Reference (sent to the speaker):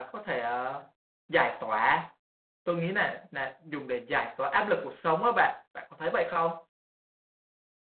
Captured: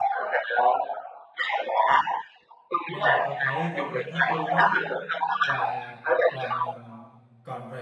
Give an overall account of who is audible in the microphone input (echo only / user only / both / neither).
both